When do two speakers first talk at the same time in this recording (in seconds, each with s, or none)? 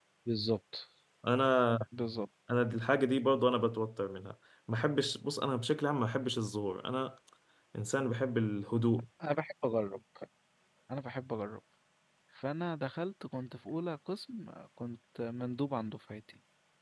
none